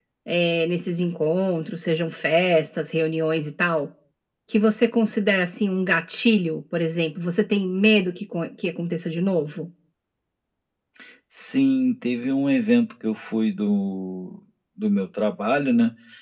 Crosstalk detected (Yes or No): No